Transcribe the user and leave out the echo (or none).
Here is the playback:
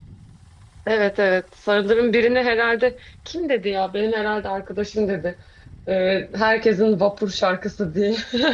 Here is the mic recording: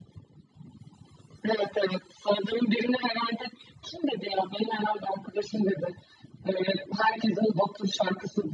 none